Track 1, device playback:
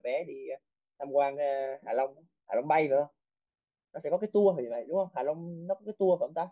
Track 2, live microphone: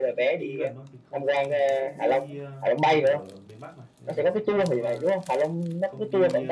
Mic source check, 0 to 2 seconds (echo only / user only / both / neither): both